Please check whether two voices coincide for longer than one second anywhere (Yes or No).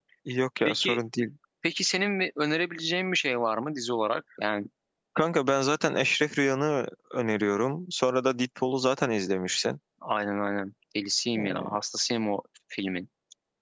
No